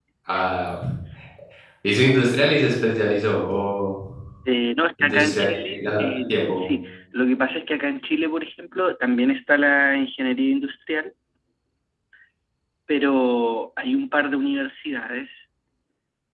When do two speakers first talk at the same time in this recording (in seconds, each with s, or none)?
5.0 s